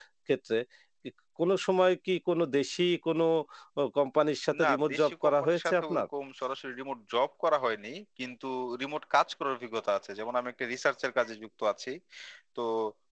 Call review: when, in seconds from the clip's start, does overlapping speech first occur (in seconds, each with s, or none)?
4.6 s